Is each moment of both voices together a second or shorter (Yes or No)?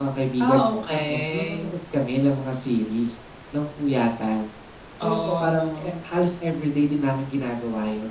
No